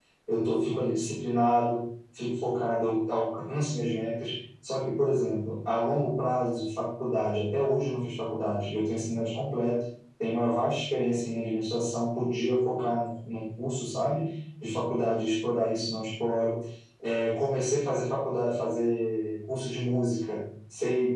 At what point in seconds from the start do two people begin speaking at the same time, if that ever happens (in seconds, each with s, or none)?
none